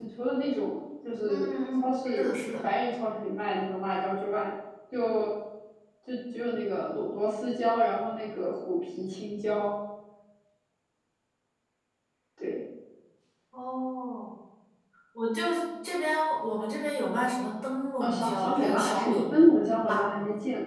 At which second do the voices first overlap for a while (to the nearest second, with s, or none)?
1 s